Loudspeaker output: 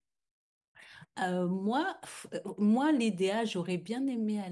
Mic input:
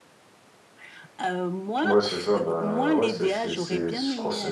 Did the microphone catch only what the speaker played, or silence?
No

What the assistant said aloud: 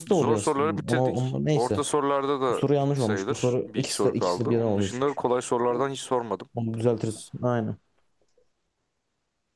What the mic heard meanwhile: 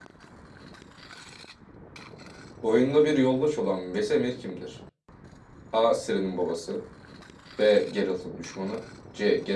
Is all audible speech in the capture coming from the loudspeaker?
No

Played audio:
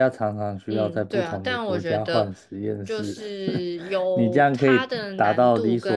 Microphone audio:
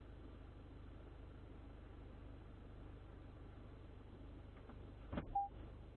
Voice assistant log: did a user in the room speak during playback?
No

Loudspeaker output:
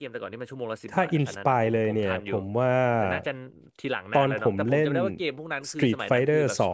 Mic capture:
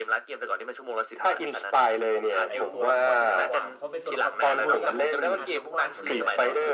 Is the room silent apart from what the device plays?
No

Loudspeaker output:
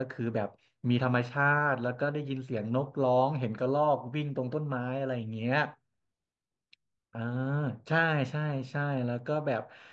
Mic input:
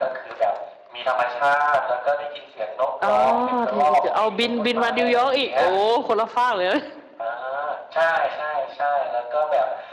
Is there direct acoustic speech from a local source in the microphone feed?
Yes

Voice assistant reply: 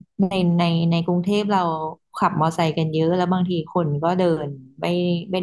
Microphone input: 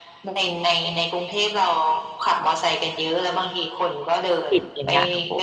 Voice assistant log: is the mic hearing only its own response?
No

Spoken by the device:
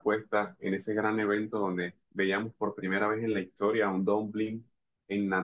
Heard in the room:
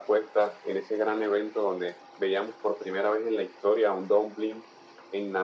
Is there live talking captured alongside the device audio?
No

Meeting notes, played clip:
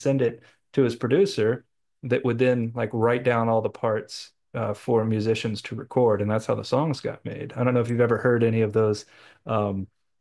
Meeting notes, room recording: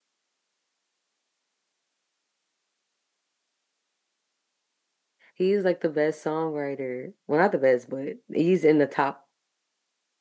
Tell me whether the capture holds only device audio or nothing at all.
No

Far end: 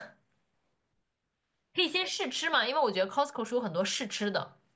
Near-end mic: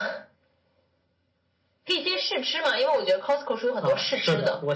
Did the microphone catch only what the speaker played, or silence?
No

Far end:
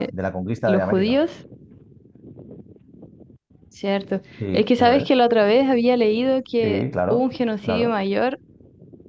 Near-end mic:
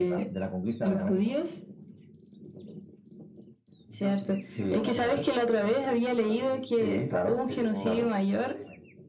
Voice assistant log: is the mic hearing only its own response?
No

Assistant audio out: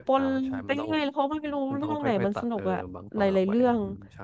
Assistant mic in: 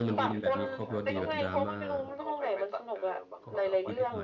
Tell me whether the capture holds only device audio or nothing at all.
No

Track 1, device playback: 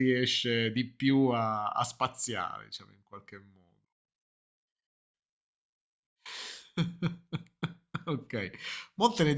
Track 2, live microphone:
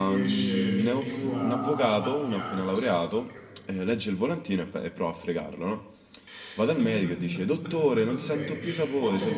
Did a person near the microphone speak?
Yes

